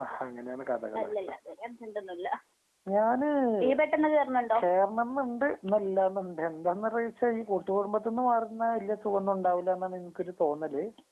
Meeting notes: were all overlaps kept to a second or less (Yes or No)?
Yes